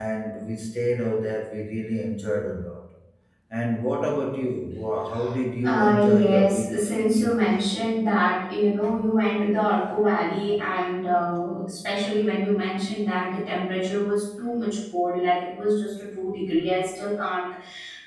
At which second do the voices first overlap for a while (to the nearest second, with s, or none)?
6 s